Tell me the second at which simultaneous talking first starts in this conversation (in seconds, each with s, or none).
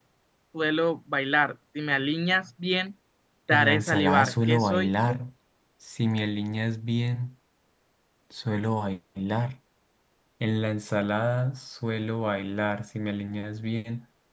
3.5 s